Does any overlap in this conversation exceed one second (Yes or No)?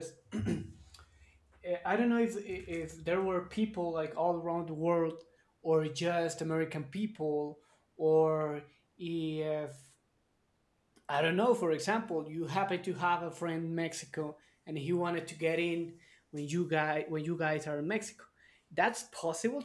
No